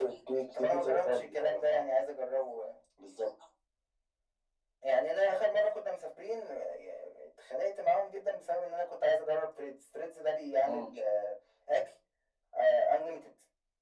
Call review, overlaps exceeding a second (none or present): present